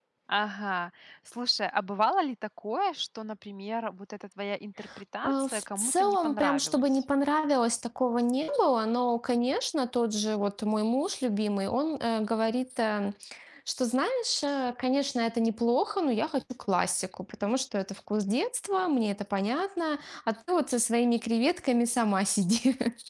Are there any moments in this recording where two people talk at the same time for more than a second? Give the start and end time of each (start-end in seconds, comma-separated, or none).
5.2-7.0